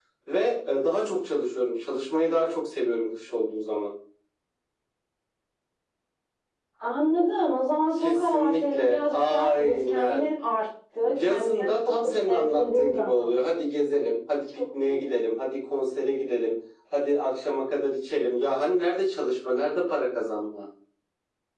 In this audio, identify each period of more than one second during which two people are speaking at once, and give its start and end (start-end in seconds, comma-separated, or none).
8.0-10.3, 11.0-13.5